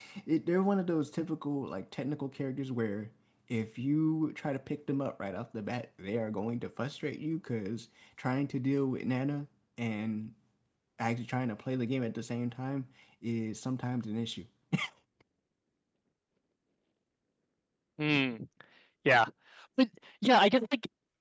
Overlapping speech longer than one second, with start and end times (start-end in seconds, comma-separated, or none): none